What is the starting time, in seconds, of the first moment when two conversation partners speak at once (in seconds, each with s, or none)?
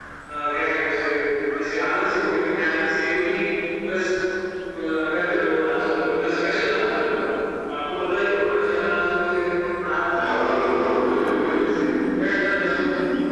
10.3 s